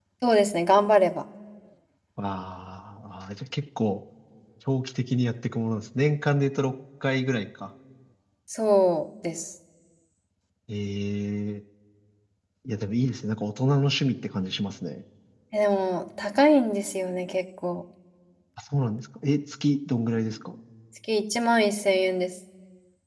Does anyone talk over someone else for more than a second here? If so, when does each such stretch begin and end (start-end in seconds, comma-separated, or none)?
none